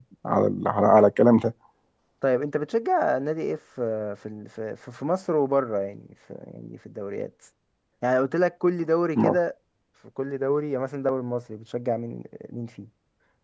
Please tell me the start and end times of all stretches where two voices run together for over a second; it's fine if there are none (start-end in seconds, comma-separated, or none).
none